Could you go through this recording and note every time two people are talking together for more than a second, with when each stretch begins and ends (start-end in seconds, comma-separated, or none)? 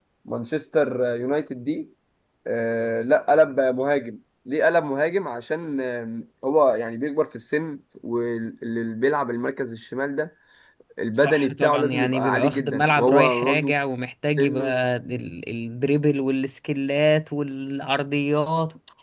11.2-13.7